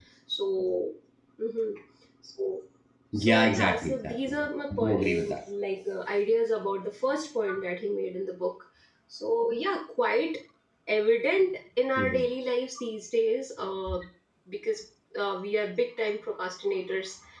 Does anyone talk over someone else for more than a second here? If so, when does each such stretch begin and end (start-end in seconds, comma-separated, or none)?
3.2-5.4